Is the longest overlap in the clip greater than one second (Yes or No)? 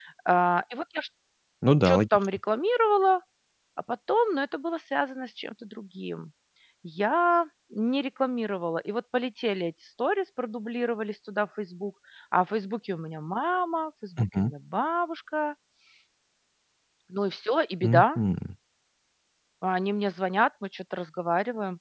No